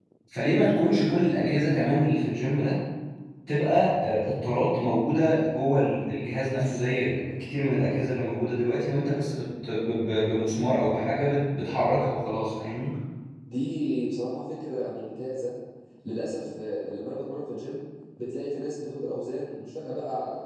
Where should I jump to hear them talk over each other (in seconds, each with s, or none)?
none